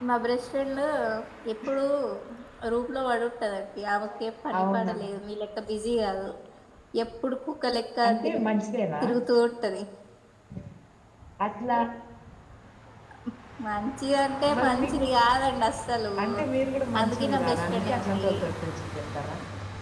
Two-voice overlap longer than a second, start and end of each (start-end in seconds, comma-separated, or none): 17.0-18.3